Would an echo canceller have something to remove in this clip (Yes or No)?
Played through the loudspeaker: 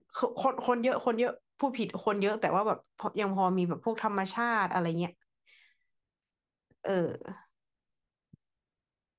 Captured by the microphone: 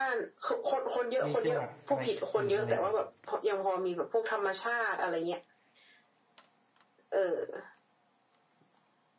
Yes